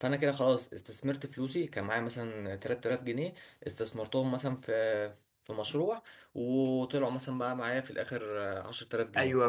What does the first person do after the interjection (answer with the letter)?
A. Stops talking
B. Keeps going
A